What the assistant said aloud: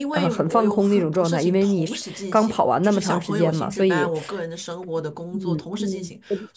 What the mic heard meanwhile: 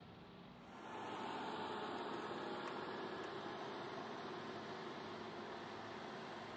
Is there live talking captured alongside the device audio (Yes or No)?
No